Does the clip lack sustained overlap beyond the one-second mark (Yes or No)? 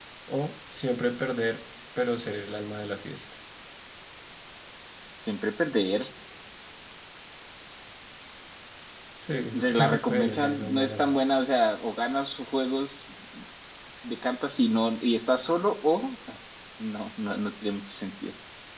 No